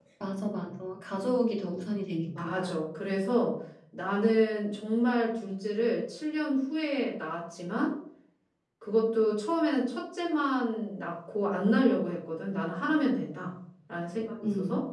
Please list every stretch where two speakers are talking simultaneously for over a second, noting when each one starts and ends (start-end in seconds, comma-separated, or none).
none